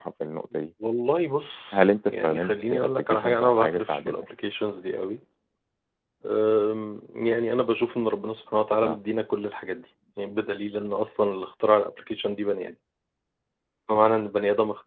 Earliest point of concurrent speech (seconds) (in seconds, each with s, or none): 1.7 s